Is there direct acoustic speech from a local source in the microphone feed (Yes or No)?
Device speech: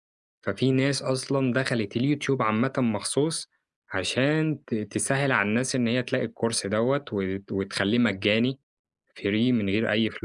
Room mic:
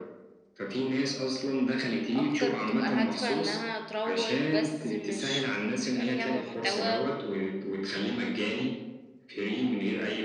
Yes